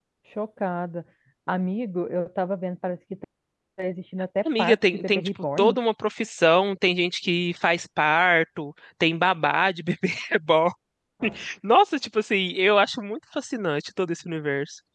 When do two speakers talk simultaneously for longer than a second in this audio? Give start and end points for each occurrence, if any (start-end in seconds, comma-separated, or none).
4.5-5.8